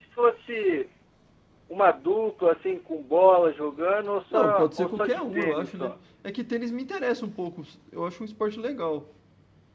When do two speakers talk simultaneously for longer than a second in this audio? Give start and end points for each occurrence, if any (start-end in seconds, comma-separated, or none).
4.3-5.9